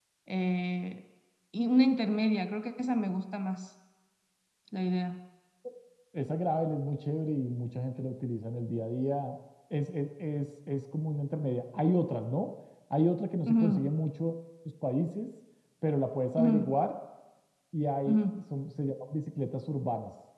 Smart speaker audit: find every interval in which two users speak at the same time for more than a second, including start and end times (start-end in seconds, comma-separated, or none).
none